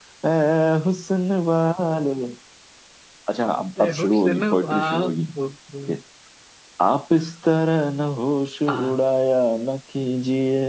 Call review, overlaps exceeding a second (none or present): present